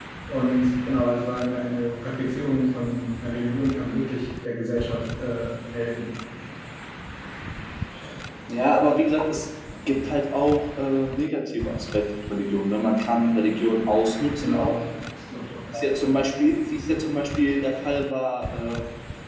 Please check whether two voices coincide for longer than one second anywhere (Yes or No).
No